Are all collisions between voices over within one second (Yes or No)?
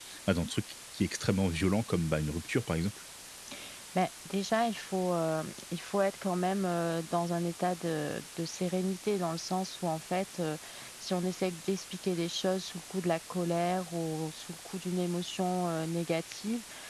Yes